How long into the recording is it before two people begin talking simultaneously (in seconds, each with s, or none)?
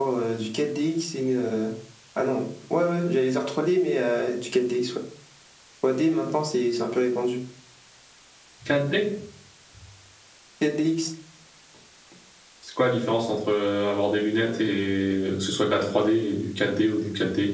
none